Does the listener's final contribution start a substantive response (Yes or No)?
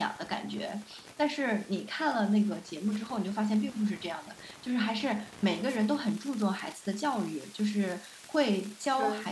No